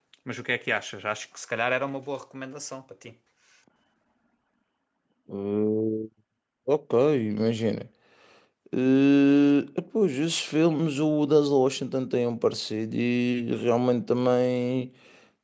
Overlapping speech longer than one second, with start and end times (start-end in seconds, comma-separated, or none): none